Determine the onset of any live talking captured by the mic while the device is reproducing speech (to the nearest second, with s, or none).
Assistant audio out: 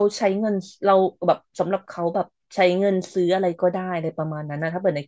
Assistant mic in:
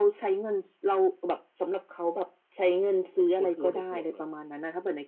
3 s